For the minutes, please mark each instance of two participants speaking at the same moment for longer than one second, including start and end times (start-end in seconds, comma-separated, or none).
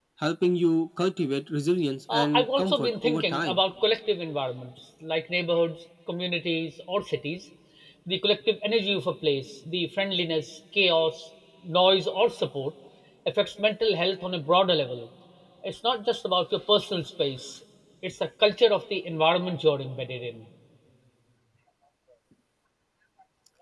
2.1-3.6